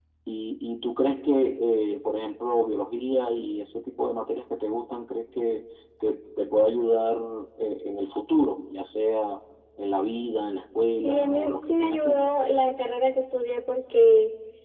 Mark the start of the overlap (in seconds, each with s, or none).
11.0 s